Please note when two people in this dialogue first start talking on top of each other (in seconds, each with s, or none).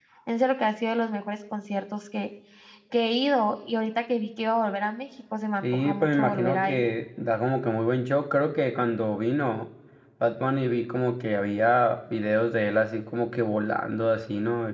5.6 s